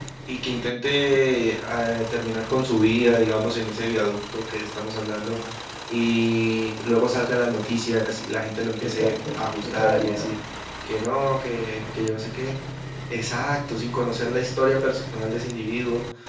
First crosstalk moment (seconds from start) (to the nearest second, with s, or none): 9 s